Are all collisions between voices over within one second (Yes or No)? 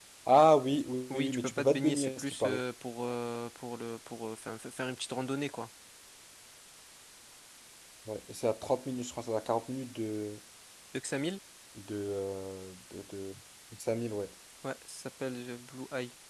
No